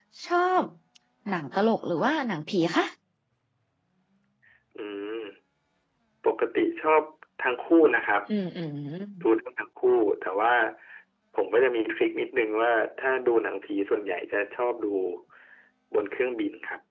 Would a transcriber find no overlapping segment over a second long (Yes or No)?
Yes